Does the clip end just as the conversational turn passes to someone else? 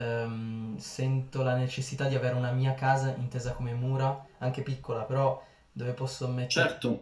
Yes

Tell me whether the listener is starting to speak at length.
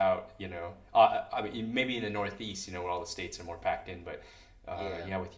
No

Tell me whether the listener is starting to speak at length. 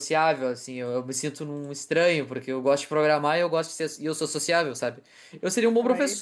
No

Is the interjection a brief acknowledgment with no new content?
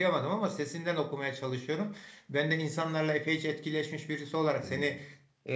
Yes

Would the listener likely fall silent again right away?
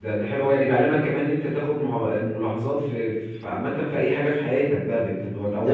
No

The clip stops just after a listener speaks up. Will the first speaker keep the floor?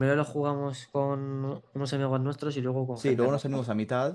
No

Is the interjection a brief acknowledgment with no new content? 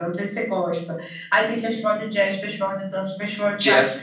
Yes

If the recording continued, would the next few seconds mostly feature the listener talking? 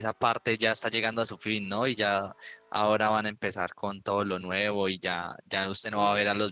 No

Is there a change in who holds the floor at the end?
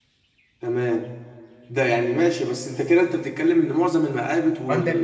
Yes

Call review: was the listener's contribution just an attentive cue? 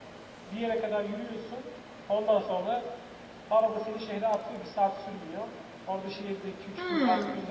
Yes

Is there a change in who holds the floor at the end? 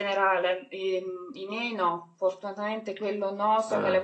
No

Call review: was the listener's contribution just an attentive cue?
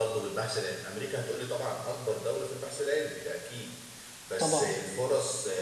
Yes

